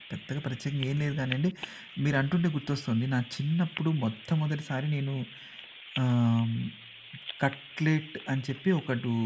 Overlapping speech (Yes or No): No